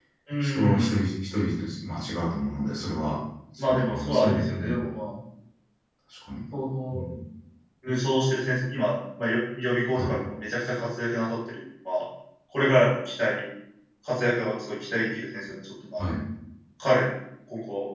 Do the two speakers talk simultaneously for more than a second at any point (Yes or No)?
Yes